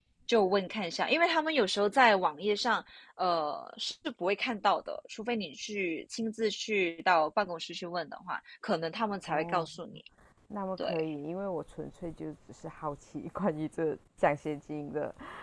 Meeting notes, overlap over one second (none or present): none